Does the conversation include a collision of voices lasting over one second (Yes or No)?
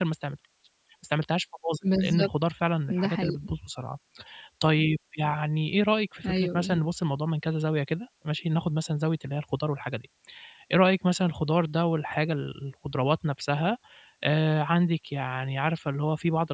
No